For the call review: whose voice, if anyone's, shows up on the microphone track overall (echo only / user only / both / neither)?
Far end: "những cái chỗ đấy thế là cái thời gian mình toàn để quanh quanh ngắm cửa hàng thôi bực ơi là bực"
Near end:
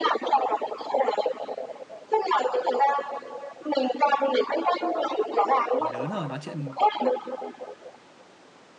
both